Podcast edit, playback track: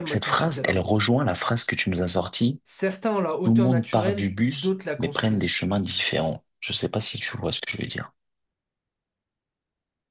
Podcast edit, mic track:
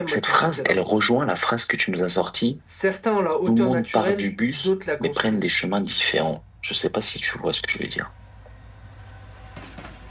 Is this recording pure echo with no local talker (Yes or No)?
Yes